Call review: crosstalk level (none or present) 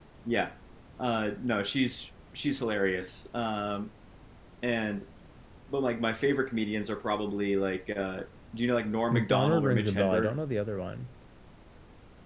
present